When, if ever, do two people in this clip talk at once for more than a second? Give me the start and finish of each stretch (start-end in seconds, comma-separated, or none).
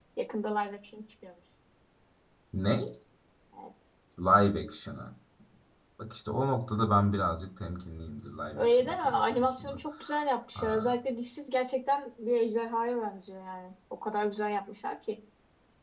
8.6-9.8